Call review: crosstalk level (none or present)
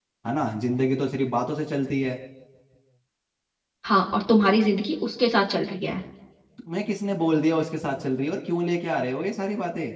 none